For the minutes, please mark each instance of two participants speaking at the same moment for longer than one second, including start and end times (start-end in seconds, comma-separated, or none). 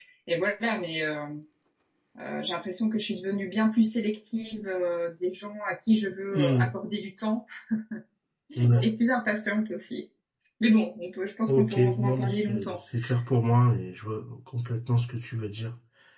11.5-12.8